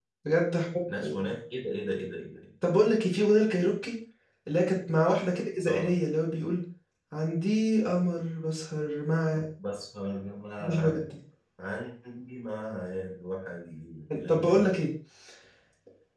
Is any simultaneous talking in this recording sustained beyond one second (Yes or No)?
No